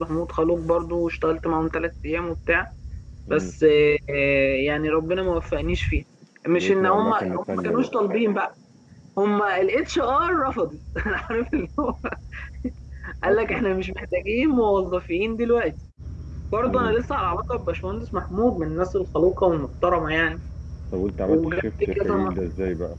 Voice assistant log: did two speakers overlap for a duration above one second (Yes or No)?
Yes